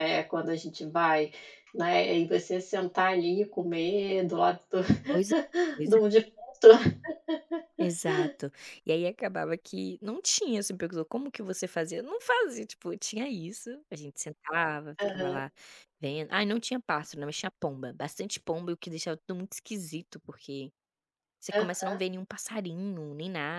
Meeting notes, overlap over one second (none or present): none